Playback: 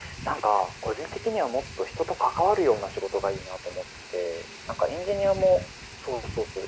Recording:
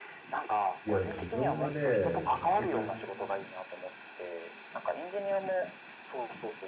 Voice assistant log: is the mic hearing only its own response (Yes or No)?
No